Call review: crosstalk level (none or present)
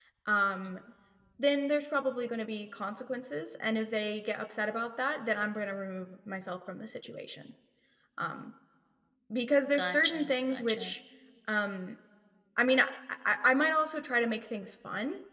present